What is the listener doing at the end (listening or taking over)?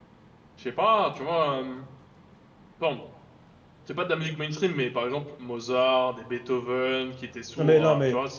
taking over